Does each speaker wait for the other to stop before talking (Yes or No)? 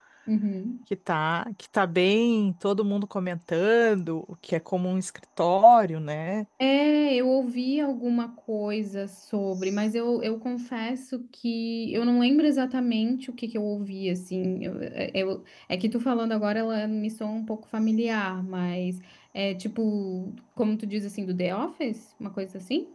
Yes